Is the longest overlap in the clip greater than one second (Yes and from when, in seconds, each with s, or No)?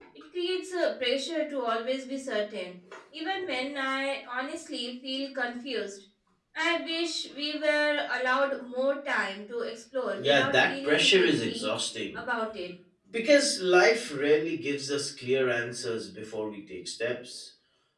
Yes, from 10.2 s